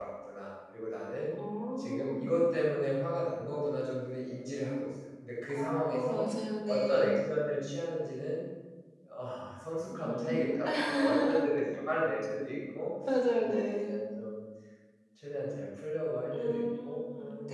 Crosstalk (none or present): present